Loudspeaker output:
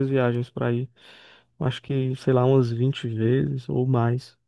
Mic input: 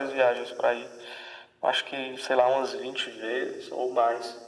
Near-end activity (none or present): none